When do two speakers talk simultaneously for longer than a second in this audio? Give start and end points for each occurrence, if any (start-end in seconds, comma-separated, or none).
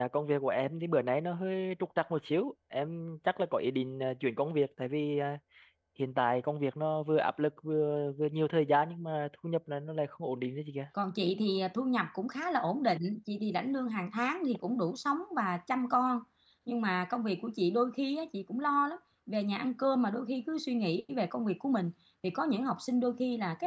none